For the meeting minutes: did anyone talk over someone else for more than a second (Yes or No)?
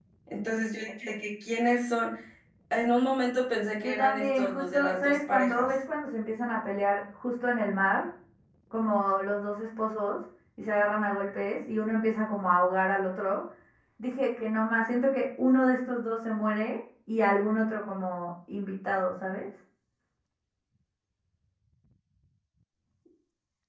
Yes